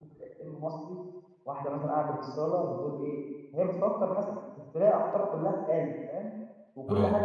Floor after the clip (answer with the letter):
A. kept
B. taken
A